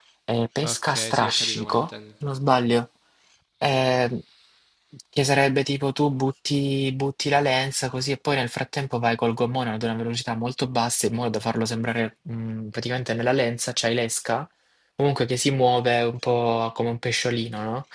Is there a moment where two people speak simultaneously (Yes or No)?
Yes